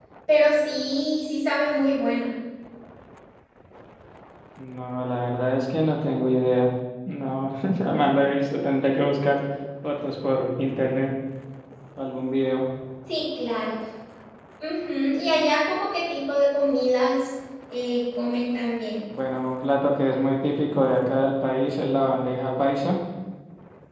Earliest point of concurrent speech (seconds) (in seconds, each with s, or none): none